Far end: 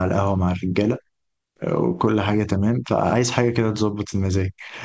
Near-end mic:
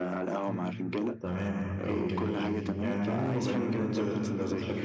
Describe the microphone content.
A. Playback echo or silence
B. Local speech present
B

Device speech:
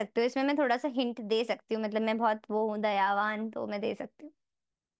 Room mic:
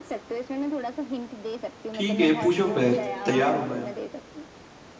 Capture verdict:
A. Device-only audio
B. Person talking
B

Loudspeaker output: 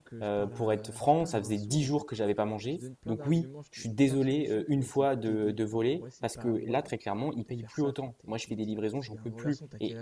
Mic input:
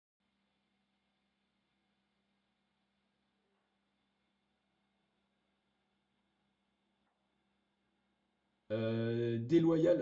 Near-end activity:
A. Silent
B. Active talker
B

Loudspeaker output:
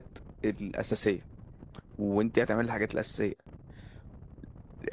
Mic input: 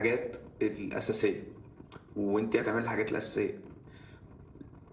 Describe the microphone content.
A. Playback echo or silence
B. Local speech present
A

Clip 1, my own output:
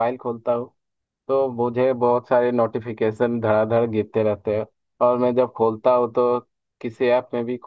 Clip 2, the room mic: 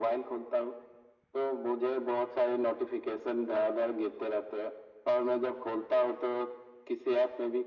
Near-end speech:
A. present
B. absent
B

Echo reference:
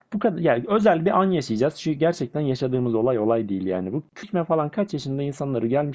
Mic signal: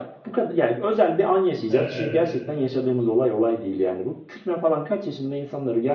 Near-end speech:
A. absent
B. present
B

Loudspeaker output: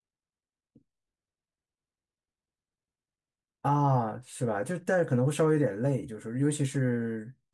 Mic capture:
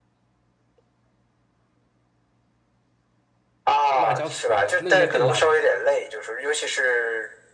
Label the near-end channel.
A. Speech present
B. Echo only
A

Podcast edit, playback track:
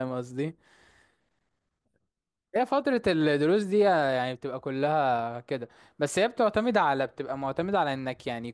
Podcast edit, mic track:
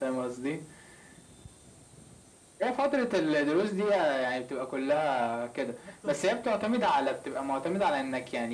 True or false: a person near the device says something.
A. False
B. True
B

